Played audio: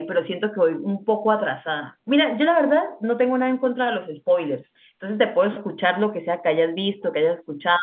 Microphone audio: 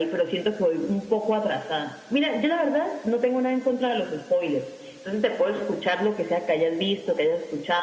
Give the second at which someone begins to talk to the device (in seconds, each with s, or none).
none